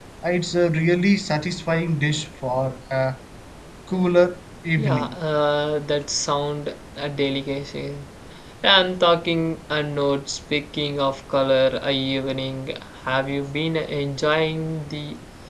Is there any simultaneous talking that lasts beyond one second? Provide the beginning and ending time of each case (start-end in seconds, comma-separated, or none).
none